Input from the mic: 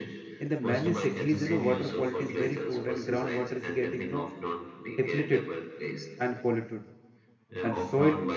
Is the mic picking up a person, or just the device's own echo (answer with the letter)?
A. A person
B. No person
A